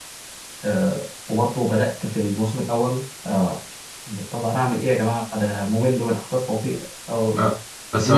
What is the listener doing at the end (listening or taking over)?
taking over